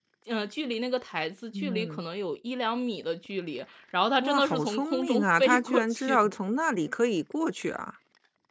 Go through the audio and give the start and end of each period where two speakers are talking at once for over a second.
4.2-6.3

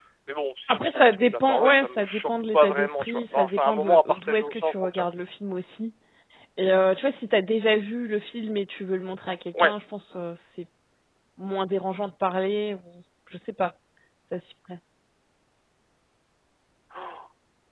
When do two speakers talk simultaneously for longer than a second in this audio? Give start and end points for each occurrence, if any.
0.7-5.0

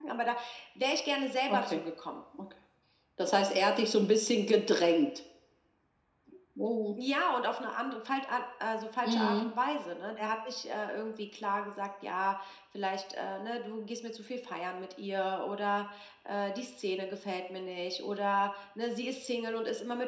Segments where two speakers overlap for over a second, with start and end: none

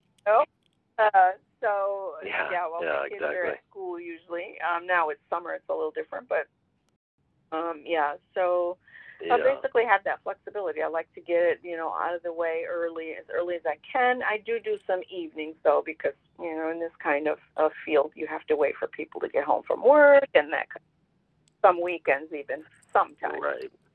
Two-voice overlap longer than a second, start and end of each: 2.2-3.5

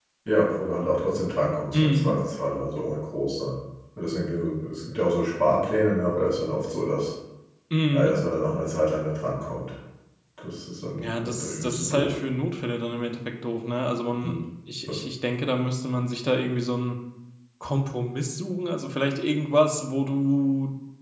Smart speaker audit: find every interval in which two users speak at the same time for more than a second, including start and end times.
11.0-12.2

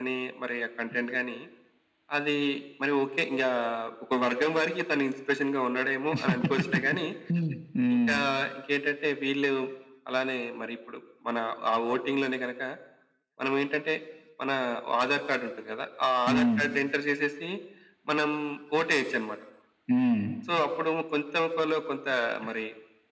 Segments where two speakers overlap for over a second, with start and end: none

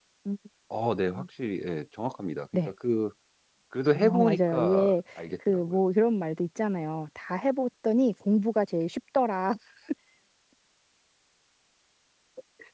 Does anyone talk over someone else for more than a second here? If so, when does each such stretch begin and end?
3.9-5.8

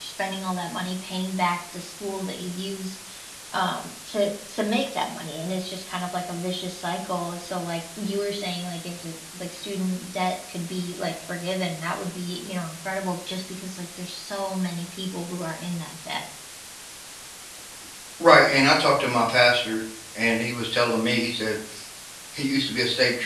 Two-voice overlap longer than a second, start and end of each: none

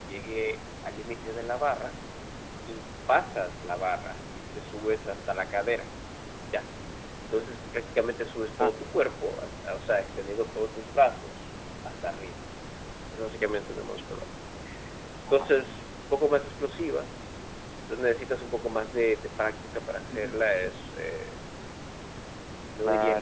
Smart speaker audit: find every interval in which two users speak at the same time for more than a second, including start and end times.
none

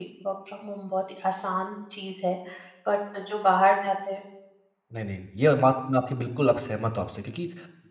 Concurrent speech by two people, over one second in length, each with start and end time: none

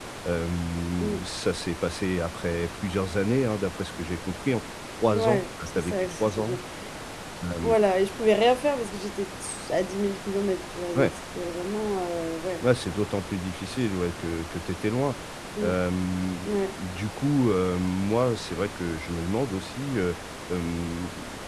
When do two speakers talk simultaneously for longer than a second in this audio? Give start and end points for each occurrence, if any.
5.1-6.6

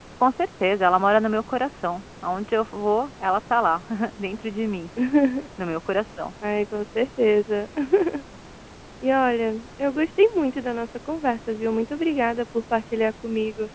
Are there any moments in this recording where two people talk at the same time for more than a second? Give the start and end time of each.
none

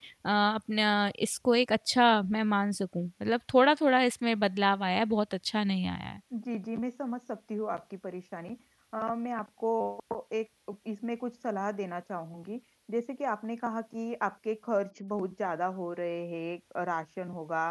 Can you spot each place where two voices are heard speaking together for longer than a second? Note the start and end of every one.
none

